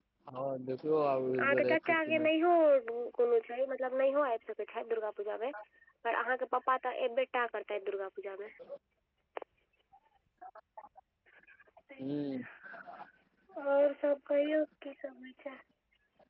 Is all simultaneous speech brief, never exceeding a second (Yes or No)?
No